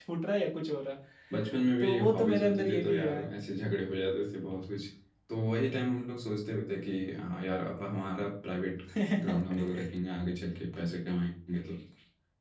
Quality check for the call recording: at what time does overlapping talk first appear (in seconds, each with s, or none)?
1.8 s